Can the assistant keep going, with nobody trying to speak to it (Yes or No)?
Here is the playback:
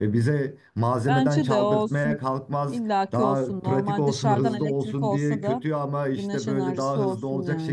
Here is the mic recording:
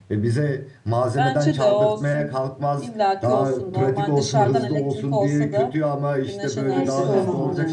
No